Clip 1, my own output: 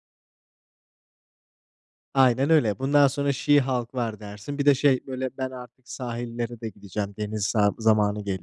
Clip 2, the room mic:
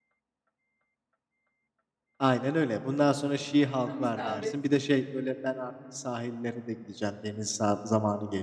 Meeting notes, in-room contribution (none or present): present